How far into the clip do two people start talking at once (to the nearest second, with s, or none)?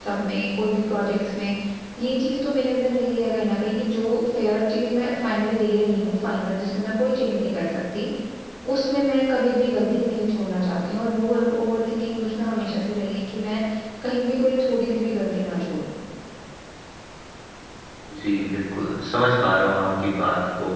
none